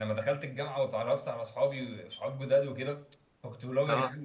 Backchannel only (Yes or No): Yes